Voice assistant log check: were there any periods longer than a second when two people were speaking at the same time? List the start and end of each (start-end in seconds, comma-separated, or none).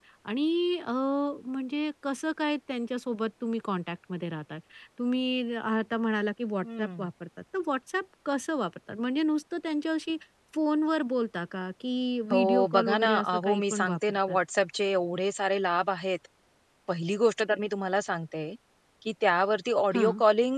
12.3-14.4